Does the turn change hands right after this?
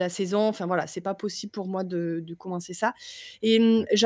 No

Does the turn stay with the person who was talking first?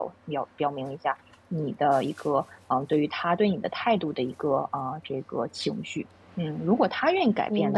Yes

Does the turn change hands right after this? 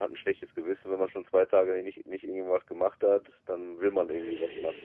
Yes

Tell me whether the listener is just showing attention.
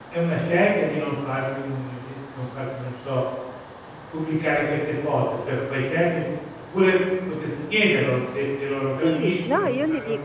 No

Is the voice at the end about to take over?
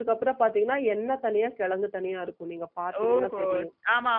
Yes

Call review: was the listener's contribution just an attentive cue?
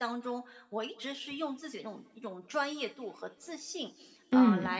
Yes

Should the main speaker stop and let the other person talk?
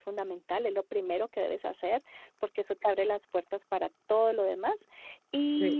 No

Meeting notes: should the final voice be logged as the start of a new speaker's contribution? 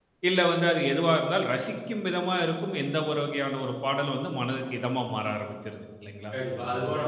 Yes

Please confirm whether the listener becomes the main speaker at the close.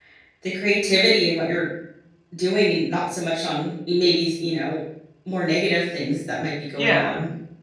Yes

